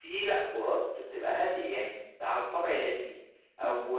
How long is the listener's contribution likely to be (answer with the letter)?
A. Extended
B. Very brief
B